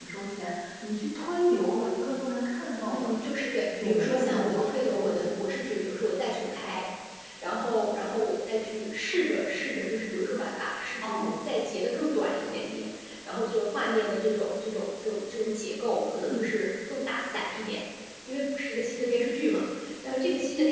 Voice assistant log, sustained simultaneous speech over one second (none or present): present